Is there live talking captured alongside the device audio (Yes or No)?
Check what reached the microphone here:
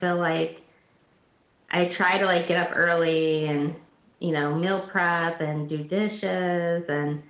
No